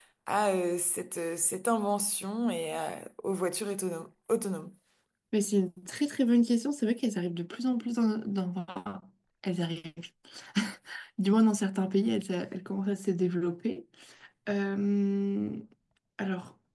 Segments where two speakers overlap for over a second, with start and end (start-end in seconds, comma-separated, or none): none